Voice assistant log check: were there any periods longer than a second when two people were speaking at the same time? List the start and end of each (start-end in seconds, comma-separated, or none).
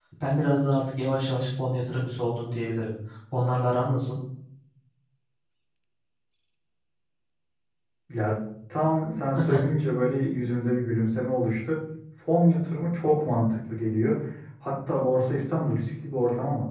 none